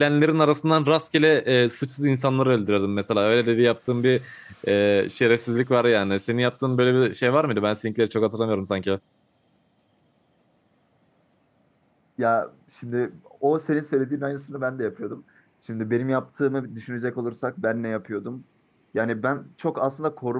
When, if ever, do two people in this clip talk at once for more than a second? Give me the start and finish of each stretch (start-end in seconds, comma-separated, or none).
none